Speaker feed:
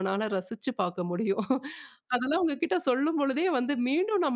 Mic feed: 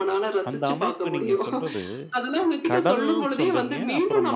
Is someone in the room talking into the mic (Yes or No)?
Yes